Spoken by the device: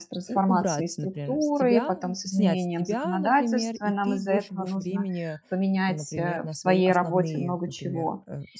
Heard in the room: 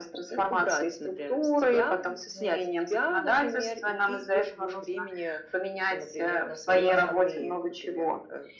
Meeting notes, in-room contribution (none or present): none